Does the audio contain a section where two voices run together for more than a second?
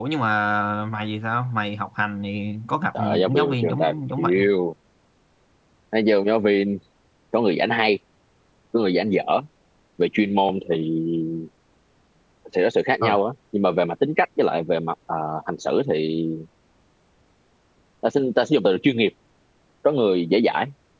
Yes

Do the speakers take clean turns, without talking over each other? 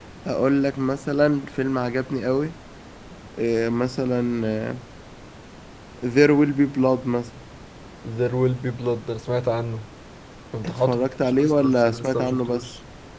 No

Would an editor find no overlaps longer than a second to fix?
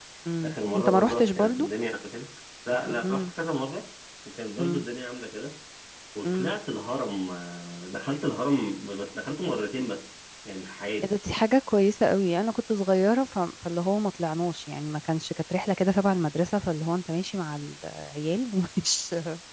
No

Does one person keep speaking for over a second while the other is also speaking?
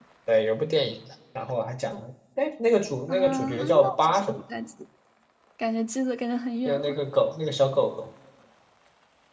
Yes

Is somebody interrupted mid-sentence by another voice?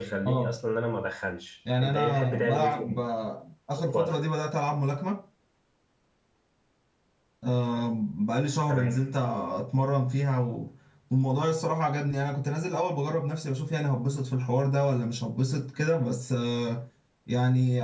Yes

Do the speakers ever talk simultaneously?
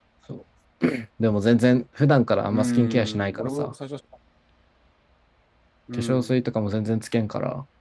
Yes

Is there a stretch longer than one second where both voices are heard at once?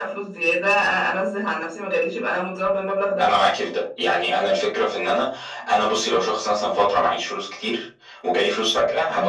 No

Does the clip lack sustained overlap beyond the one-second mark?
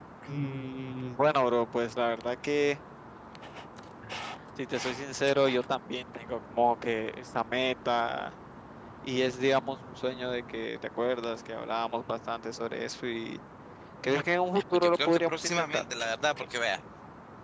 No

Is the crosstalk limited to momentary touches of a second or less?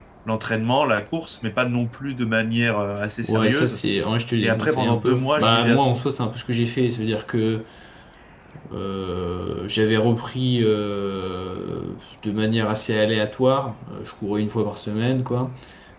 No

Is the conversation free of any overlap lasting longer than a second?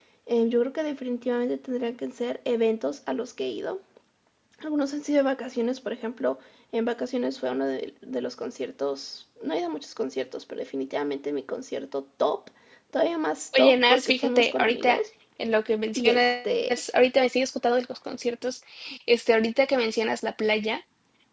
No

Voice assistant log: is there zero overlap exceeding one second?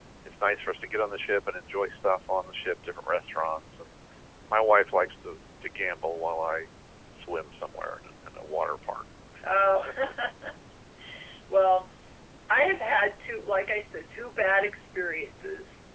Yes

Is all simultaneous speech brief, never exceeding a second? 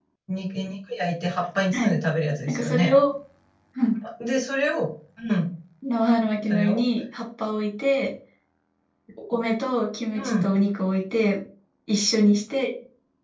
Yes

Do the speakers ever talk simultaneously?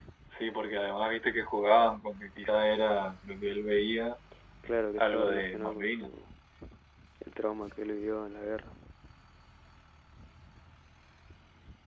Yes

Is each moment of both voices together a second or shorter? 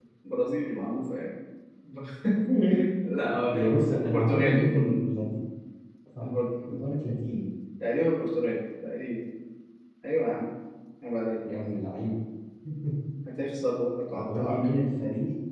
No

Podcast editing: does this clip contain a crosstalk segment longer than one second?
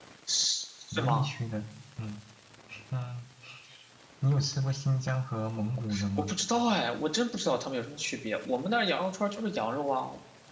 No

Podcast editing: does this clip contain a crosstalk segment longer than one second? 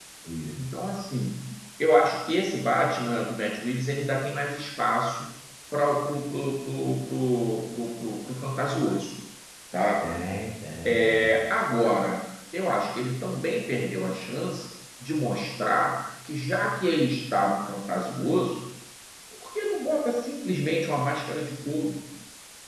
No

